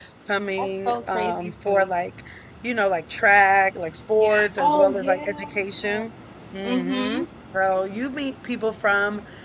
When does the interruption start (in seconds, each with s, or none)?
0.6 s